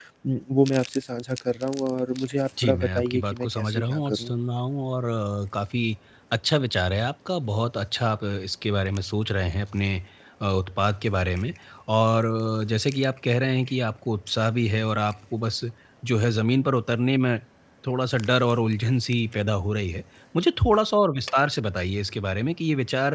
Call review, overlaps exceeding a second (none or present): present